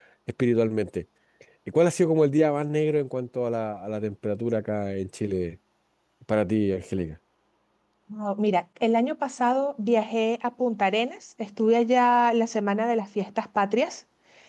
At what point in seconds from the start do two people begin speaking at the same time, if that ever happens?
none

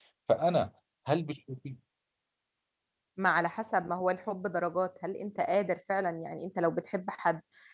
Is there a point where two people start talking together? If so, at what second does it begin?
none

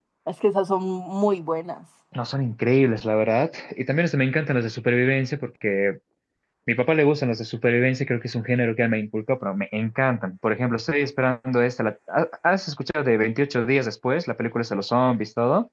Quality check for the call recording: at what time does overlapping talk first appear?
none

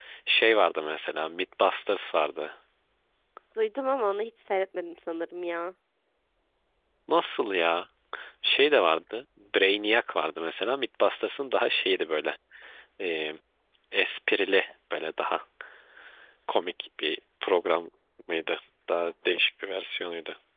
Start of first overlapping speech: none

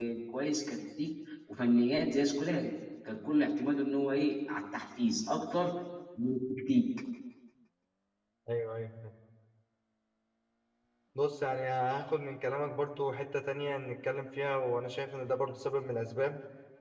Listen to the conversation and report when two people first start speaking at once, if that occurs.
none

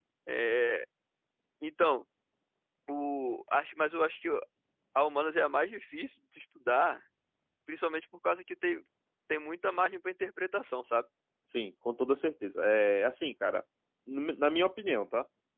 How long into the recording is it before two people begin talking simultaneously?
none

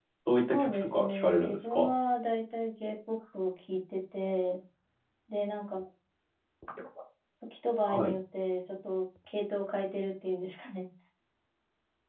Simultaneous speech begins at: 1 s

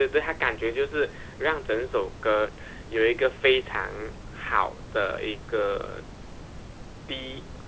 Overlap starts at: none

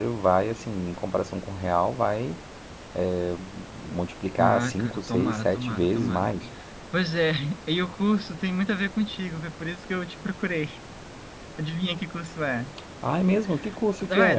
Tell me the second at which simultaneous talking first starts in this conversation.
4 s

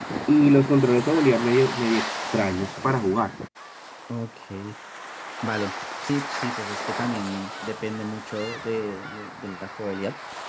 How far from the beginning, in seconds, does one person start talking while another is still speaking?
none

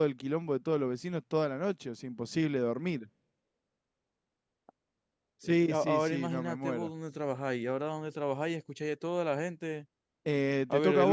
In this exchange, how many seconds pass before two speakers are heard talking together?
5 s

